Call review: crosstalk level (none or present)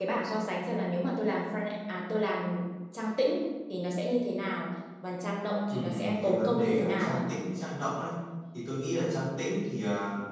present